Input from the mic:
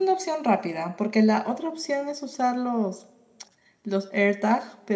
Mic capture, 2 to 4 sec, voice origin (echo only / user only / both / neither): user only